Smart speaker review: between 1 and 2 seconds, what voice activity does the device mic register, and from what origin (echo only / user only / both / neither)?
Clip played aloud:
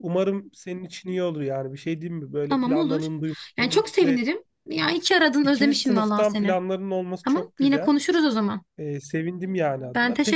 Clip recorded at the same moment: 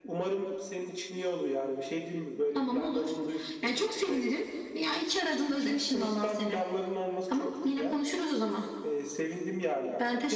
echo only